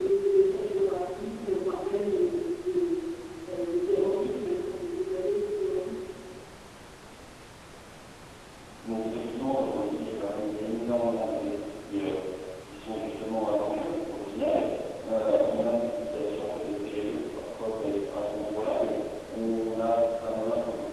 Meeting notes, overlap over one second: none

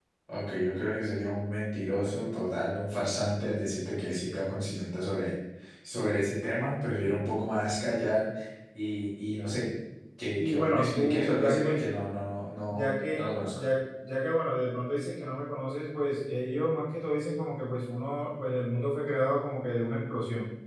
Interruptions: present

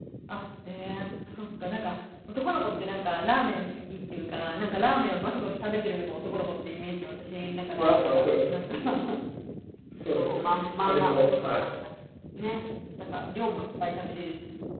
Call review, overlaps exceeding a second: present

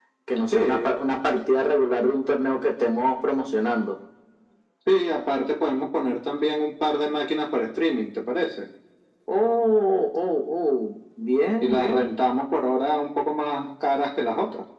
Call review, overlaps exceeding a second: none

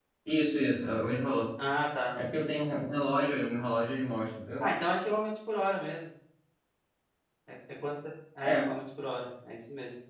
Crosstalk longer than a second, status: none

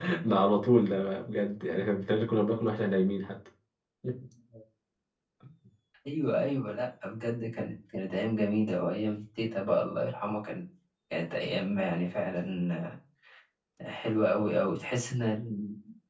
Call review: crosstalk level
none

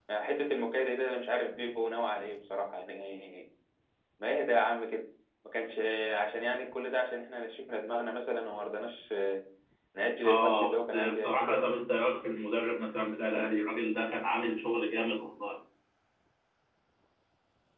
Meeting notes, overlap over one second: present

